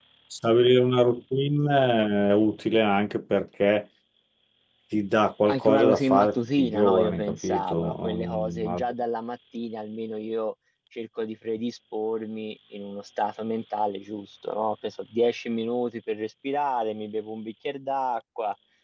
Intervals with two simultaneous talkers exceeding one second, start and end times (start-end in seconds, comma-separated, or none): 5.5-8.8